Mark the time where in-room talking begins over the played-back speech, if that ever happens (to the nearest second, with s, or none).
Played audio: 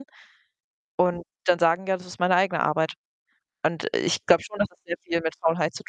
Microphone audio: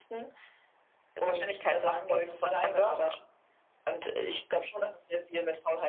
1 s